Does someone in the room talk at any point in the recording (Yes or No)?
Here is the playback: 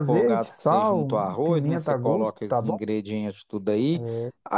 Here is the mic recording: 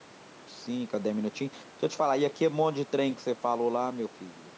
Yes